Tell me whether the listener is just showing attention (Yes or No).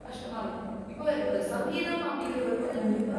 Yes